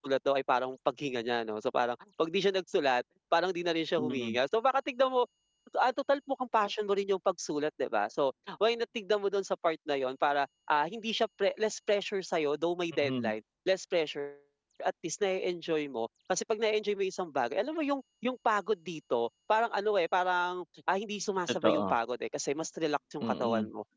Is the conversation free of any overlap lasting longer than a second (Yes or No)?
Yes